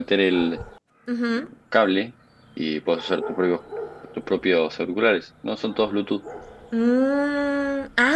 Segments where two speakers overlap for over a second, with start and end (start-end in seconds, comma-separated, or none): none